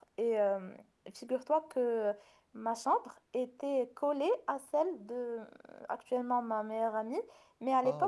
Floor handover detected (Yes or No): No